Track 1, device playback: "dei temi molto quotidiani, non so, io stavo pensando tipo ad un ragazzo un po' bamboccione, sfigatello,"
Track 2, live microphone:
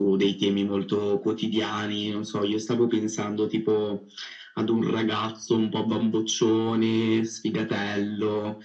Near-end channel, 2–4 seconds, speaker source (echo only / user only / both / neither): echo only